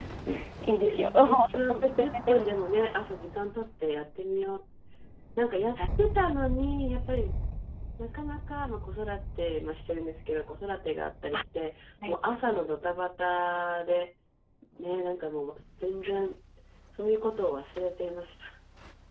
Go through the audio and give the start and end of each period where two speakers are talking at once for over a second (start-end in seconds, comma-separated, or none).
0.8-2.4